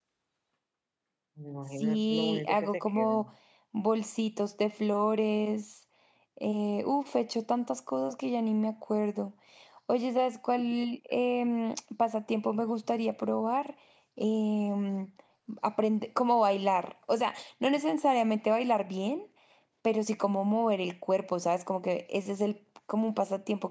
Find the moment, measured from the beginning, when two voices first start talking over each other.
1.8 s

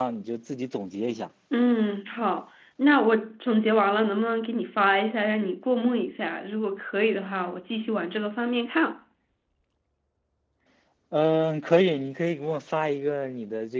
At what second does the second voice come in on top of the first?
none

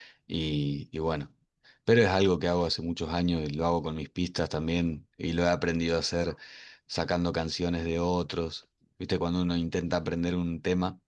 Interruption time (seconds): none

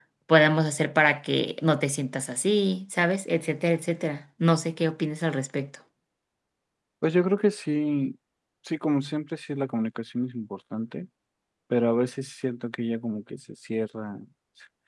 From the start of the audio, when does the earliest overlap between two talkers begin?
none

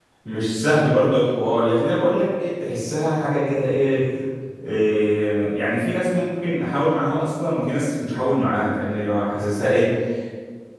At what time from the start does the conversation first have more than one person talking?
none

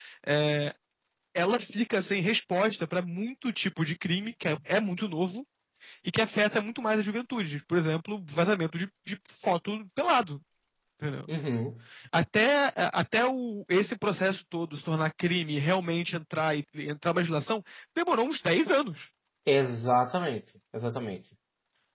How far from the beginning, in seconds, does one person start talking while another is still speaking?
none

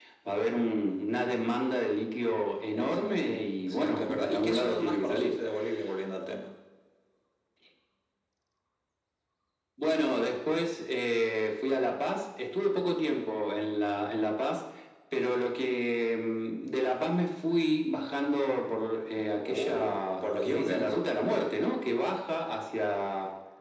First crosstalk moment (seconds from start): 2.8 s

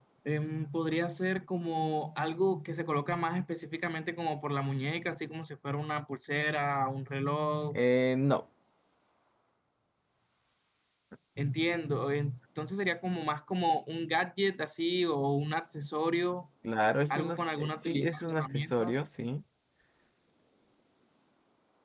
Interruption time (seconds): 17.1 s

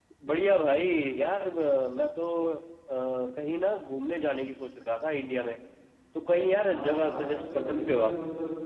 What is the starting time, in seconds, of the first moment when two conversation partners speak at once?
6.6 s

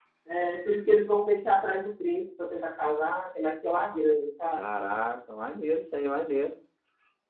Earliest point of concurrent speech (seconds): none

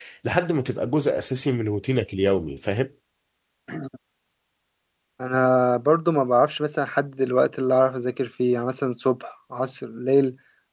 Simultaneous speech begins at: none

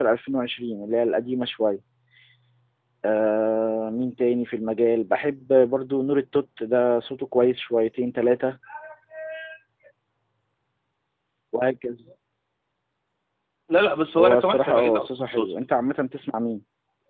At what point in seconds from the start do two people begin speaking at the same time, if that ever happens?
14.2 s

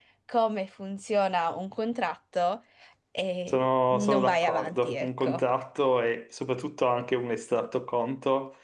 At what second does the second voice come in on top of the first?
3.5 s

